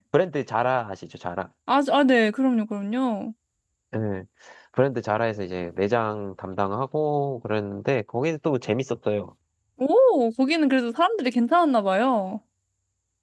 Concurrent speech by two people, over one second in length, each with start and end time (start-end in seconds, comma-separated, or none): none